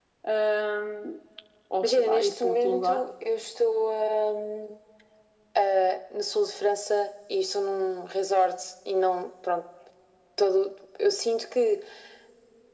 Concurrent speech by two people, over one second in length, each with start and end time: 1.8-3.0

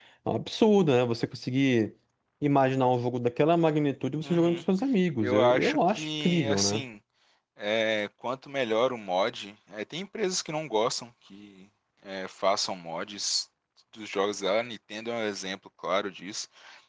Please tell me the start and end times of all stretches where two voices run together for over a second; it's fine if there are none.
5.2-6.8

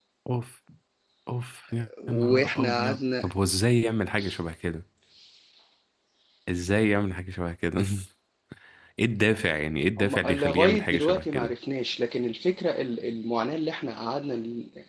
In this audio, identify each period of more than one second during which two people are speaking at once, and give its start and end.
2.1-3.3, 10.0-11.5

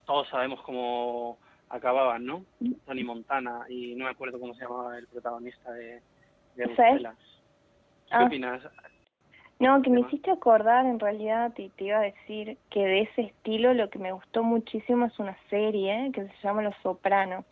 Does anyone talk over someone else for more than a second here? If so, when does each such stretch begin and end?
none

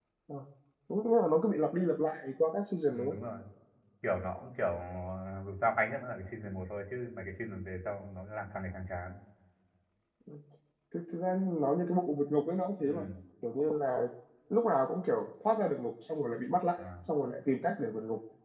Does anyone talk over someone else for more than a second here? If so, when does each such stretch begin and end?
none

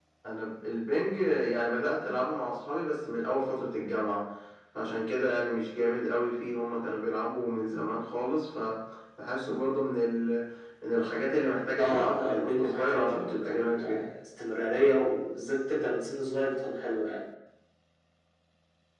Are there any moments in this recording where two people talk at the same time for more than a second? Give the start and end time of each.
11.8-14.1

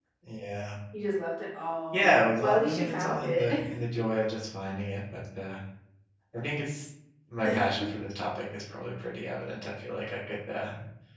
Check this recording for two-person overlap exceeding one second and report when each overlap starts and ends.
1.9-3.5

